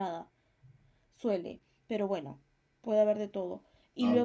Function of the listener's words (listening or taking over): listening